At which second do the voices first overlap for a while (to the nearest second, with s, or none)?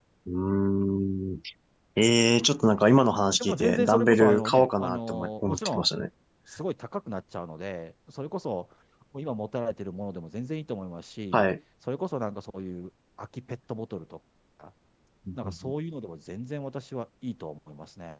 3 s